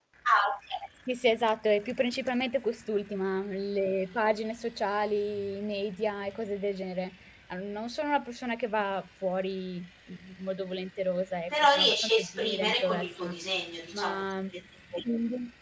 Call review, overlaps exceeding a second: present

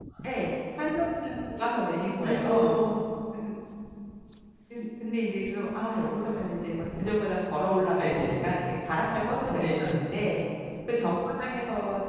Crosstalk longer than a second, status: none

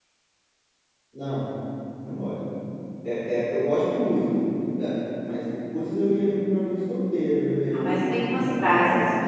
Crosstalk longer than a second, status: present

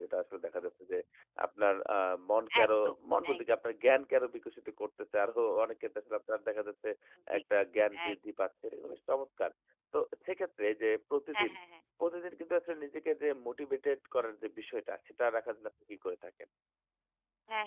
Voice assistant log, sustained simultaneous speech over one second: none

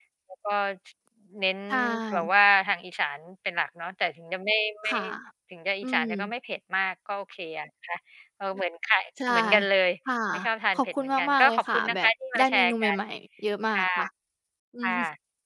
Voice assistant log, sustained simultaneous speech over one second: present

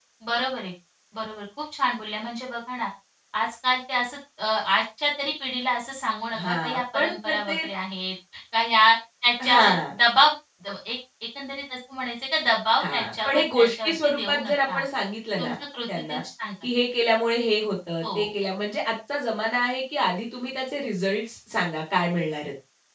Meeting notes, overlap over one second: present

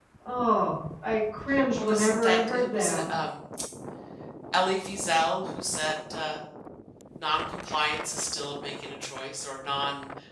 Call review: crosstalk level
present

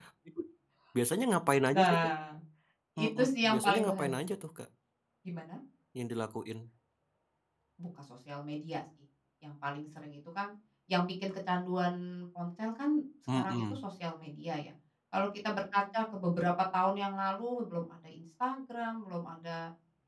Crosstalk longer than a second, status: present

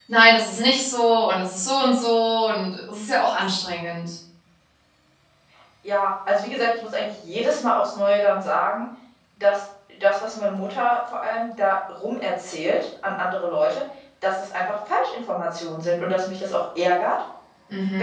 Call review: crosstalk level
none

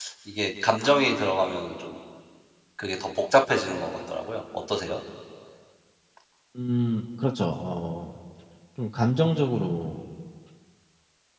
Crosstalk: none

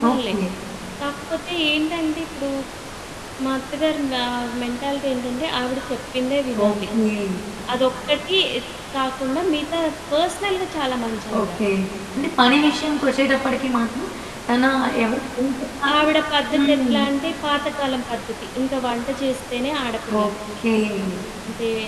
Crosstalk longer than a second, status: none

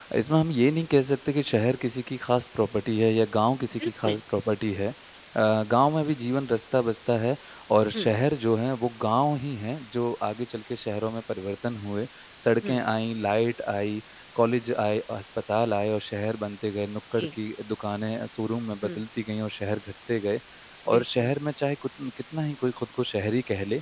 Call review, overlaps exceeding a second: none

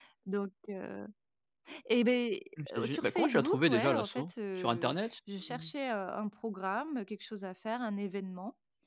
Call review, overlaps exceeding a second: present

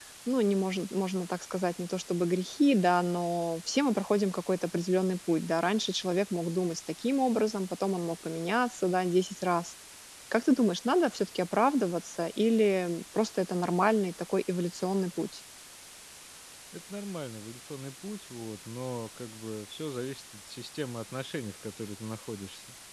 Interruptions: none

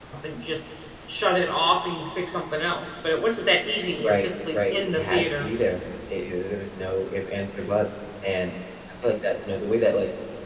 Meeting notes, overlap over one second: present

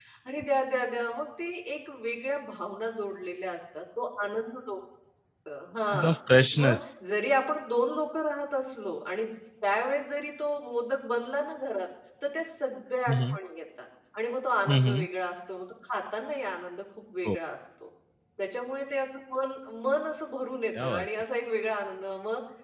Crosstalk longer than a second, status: none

